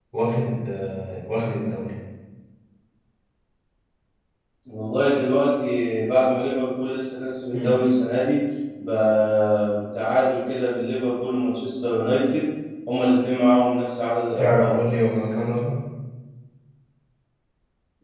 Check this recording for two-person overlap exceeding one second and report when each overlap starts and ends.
none

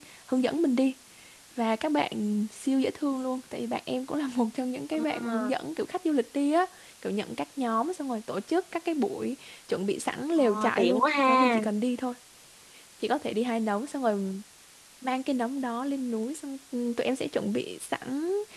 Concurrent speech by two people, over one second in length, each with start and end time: 10.4-11.6

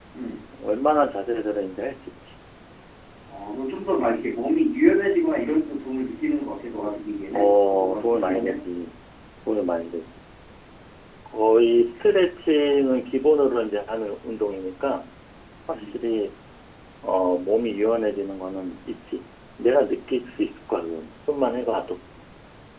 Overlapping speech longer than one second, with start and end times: 7.3-8.6

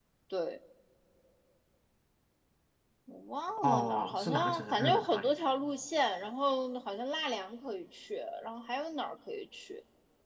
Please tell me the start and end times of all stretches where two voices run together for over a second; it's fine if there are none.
3.6-5.3

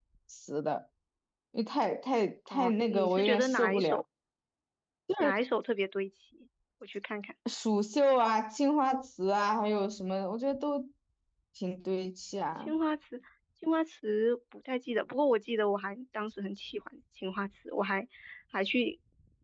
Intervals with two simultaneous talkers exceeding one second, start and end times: 2.5-4.0

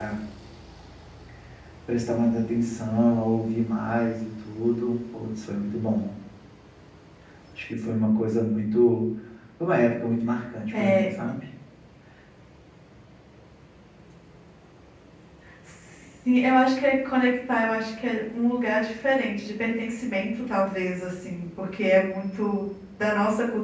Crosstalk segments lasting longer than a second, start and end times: none

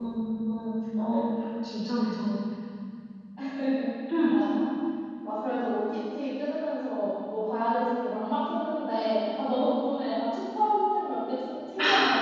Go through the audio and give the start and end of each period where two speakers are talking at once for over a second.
none

